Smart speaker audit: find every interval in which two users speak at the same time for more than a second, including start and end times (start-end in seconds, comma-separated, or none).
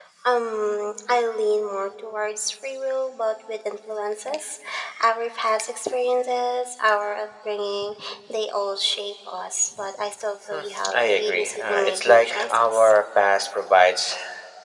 10.5-12.9